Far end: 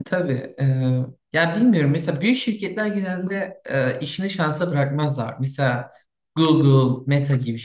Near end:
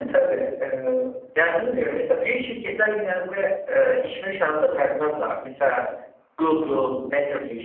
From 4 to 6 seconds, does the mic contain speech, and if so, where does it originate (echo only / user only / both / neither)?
echo only